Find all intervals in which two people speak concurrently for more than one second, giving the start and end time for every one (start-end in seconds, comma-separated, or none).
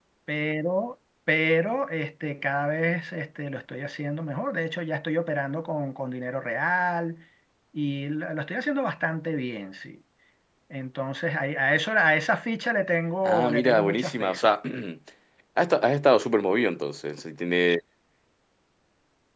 13.2-14.5